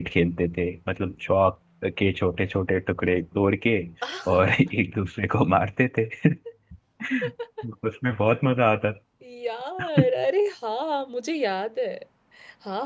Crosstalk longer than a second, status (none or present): none